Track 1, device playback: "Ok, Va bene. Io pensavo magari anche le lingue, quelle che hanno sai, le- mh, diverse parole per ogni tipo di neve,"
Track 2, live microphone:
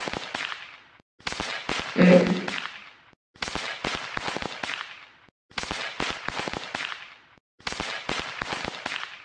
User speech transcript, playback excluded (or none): Mm,